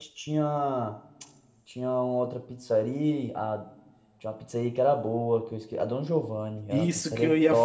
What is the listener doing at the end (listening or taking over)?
taking over